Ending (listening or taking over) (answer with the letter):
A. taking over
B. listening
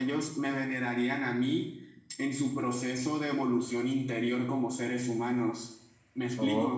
A